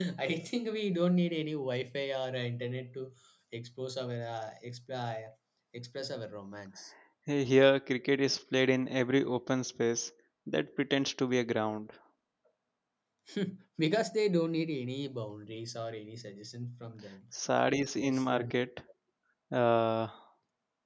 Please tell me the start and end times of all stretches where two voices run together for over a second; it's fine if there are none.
none

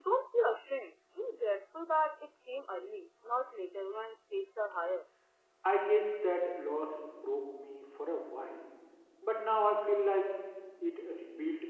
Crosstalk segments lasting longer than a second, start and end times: none

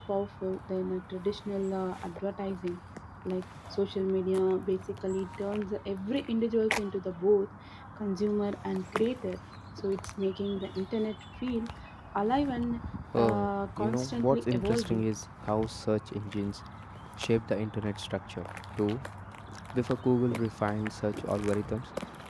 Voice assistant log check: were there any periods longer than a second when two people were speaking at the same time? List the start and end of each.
13.2-15.0

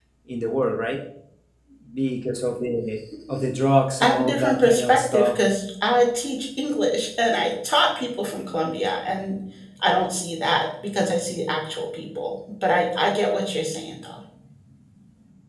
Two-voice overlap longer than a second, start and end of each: 4.0-5.3

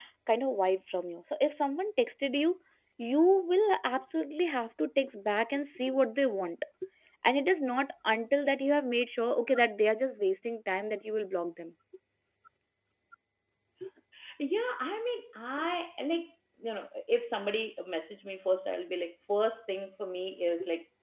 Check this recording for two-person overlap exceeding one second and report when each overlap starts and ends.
none

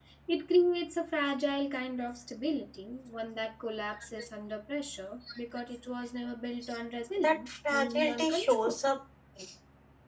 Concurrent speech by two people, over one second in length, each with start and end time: 7.2-8.8

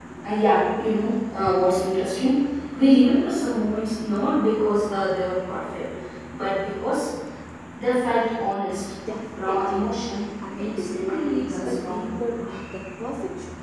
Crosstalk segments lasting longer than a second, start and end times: 10.4-12.1

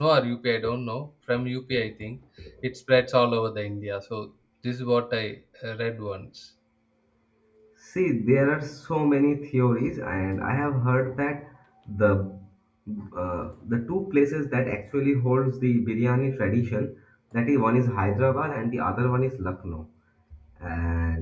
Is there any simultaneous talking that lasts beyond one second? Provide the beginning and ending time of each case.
none

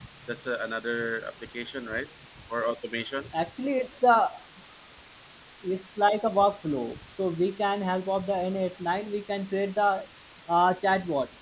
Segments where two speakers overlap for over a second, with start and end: none

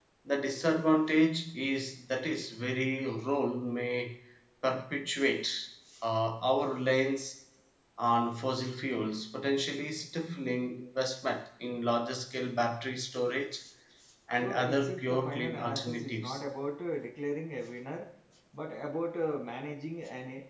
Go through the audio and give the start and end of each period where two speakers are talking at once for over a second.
14.4-16.4

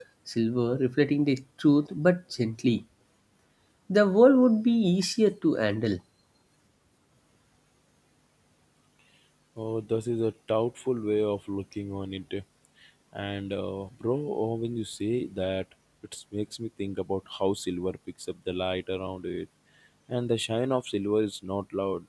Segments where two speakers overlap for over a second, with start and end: none

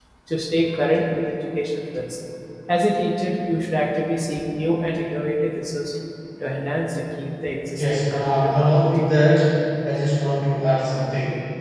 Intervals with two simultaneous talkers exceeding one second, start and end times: 7.8-9.0

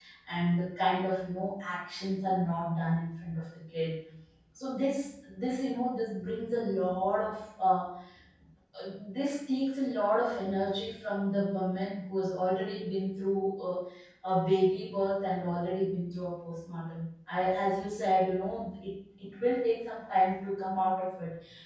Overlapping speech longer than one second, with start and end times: none

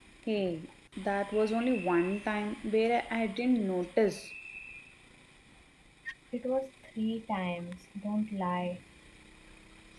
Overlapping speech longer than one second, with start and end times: none

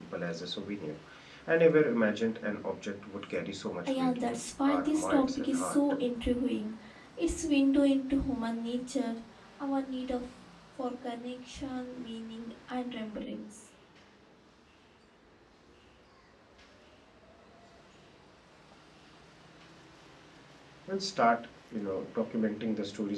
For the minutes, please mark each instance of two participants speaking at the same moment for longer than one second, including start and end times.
3.9-5.8

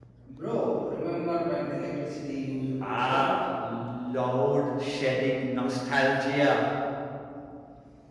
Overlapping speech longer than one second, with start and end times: none

